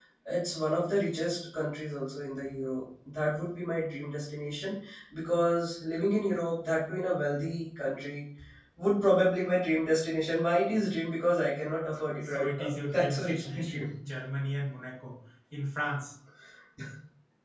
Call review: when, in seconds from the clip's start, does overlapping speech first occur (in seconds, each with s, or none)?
12.2 s